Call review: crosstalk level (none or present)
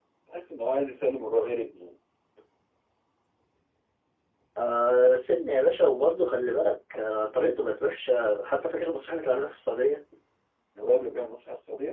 none